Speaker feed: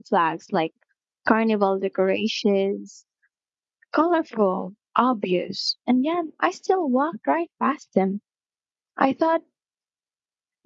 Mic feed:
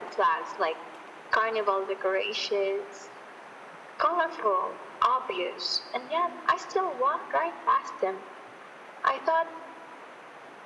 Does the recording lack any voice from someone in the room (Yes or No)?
Yes